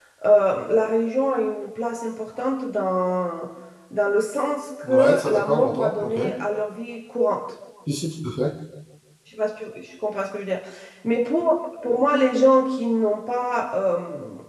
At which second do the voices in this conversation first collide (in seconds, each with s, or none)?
4.8 s